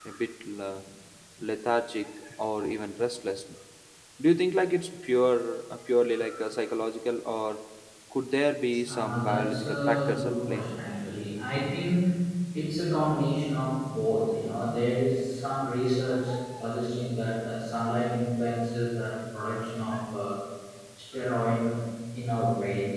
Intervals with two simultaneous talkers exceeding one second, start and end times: 8.9-10.6

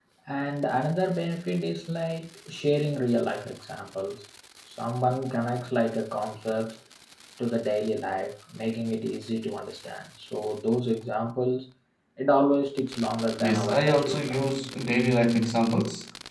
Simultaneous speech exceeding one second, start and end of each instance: 13.4-14.6

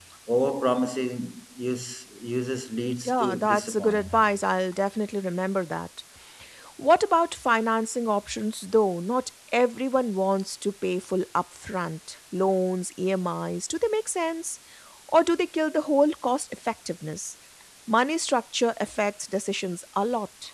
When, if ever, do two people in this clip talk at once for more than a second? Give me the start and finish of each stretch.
3.0-4.3

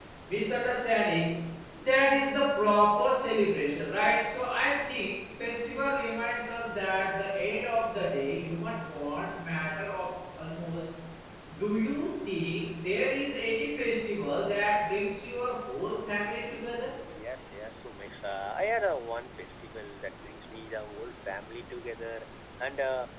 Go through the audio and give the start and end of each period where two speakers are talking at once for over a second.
none

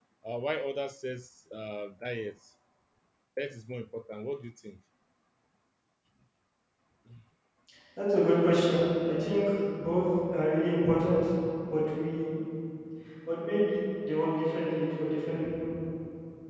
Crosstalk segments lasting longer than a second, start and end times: none

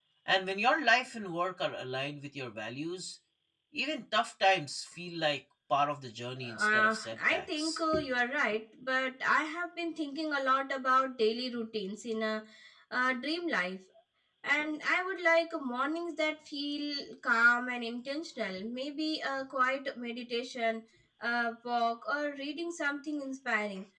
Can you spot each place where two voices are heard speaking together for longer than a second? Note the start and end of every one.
6.4-7.8

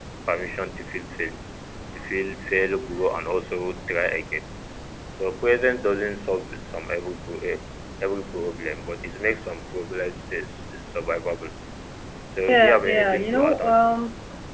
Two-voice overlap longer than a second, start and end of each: 12.5-13.8

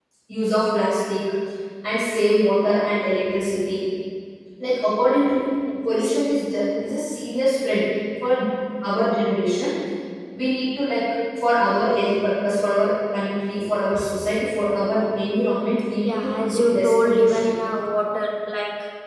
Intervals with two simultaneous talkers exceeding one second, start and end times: 16.0-17.5

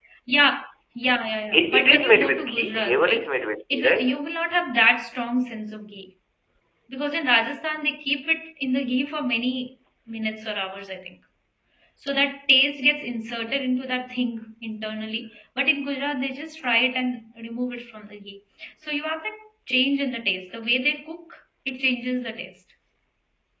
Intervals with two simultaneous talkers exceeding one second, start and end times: 1.5-3.3

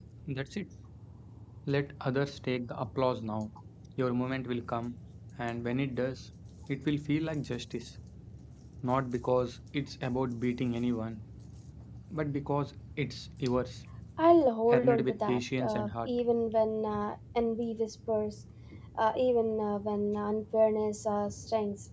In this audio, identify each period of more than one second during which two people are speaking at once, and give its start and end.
14.7-16.1

